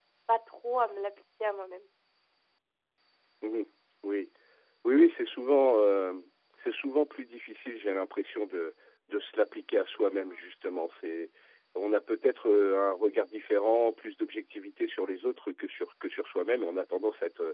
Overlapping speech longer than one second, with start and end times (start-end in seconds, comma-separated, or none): none